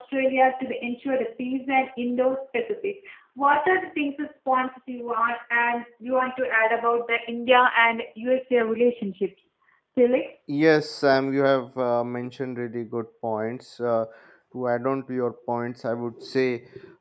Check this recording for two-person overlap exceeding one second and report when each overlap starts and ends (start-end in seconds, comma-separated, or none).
none